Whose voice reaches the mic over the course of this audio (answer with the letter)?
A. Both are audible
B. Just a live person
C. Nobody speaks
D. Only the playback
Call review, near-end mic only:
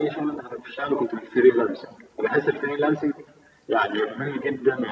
D